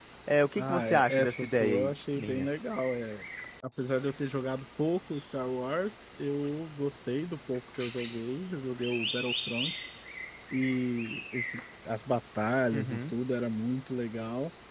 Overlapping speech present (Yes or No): Yes